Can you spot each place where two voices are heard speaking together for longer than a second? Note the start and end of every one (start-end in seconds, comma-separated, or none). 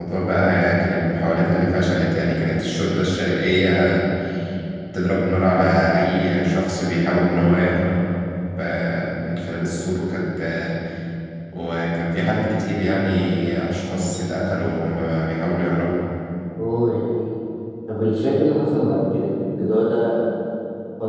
none